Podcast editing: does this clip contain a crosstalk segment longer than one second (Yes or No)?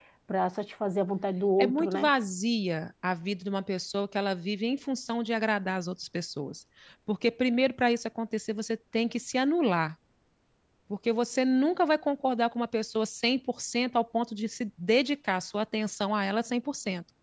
No